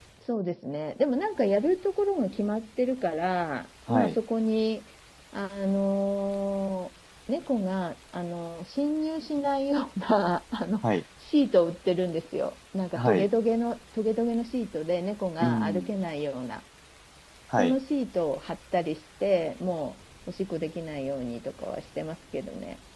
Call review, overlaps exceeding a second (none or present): none